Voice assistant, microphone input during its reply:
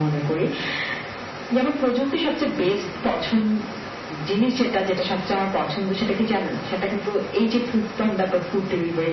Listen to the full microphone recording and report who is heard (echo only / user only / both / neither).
echo only